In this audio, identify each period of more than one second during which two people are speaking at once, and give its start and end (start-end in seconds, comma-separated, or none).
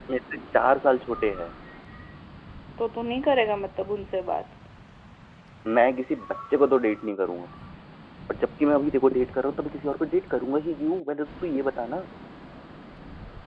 none